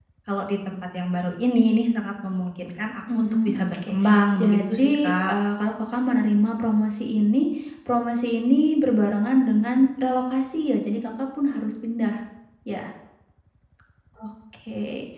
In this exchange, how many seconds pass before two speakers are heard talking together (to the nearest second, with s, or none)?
3 s